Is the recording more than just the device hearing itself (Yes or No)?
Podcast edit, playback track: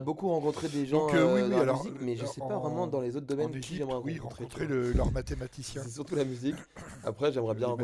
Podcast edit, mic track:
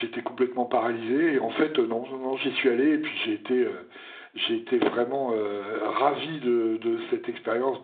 Yes